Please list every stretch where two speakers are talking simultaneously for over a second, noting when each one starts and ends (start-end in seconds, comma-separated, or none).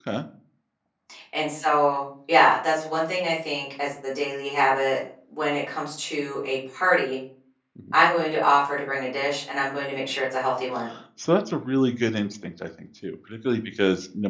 none